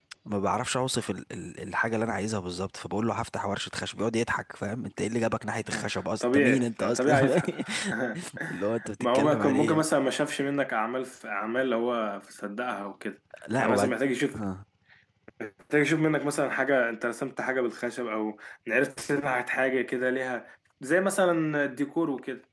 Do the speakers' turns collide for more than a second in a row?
Yes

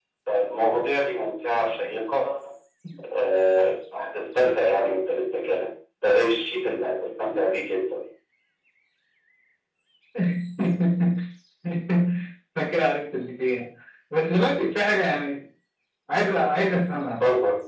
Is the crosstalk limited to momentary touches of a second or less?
Yes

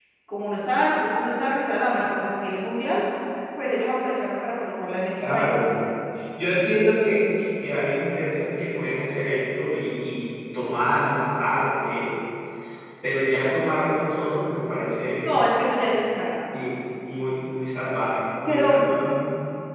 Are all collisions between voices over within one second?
Yes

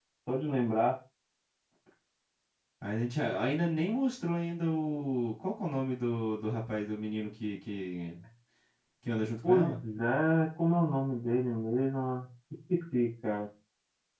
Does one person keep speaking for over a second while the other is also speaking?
No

